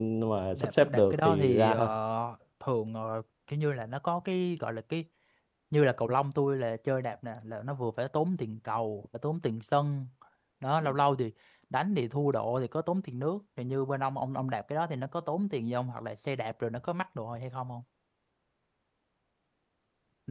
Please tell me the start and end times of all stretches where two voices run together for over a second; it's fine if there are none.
0.5-1.9

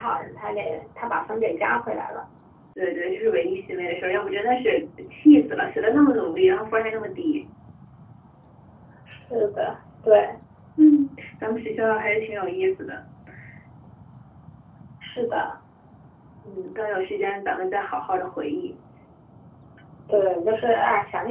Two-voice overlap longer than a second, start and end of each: none

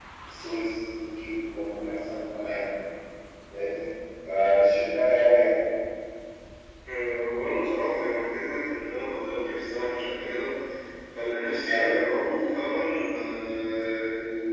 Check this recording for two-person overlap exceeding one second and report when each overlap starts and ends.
none

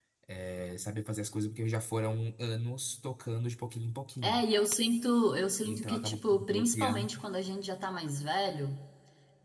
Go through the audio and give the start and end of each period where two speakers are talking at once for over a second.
5.6-7.1

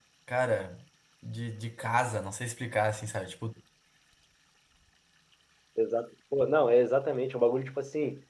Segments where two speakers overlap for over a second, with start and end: none

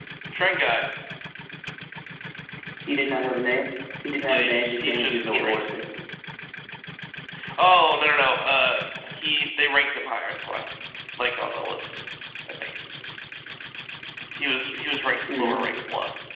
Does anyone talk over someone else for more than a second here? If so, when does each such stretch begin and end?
4.3-5.6

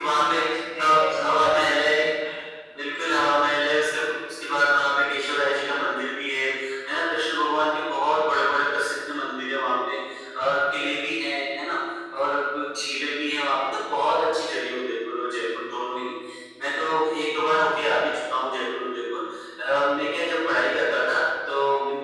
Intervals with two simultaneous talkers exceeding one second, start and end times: 0.8-2.1

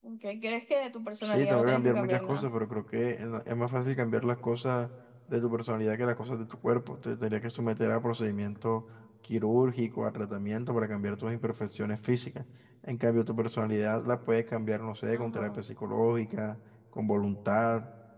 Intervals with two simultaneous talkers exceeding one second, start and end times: 1.2-2.5

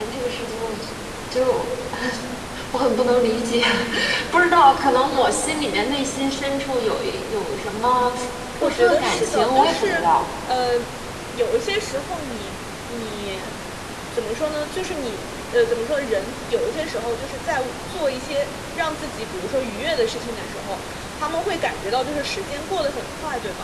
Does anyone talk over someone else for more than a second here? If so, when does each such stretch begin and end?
8.6-10.0

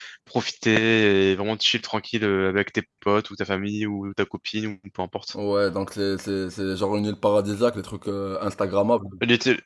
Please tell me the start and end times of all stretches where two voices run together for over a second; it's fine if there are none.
none

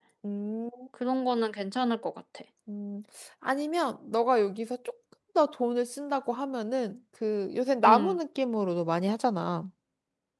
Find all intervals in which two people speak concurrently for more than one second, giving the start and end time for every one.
none

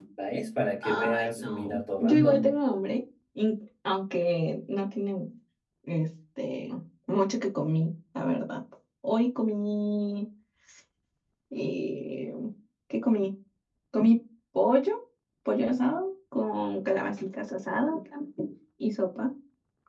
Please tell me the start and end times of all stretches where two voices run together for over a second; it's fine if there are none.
0.8-2.5

